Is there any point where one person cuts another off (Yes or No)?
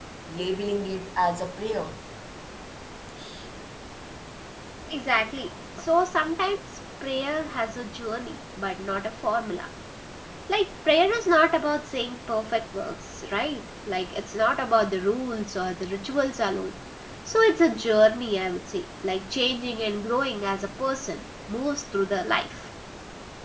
No